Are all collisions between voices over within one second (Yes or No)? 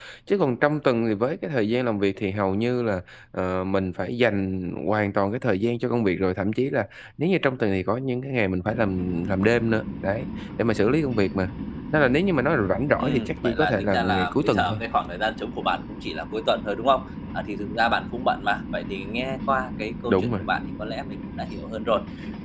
No